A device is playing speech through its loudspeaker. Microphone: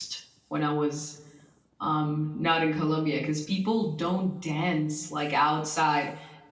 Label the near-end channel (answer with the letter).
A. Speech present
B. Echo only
A